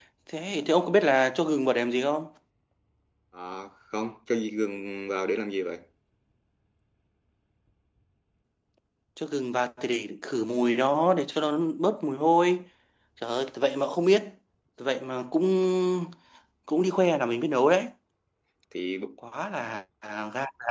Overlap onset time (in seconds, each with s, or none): none